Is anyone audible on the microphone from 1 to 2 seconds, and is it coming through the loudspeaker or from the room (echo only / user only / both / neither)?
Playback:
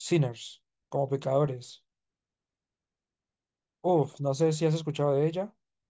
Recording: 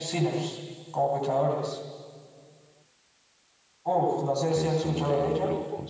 echo only